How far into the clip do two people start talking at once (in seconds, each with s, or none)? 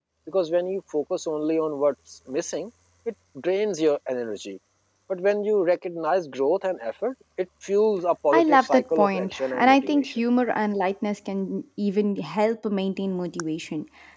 8.3 s